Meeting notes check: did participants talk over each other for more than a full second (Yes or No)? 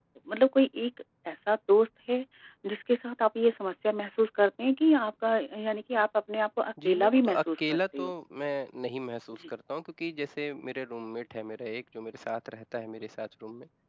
Yes